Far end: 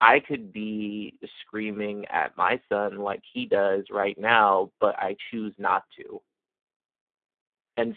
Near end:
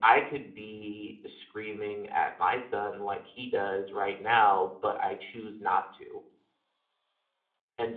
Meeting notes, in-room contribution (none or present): none